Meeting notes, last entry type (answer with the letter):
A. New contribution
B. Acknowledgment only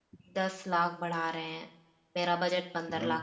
A